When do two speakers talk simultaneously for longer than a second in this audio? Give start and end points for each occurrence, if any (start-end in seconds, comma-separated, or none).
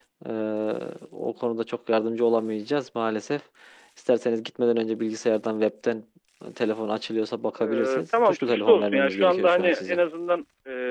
7.6-10.0